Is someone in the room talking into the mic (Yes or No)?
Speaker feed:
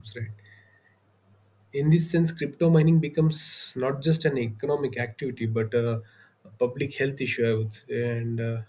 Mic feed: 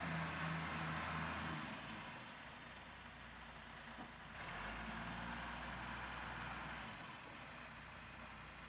No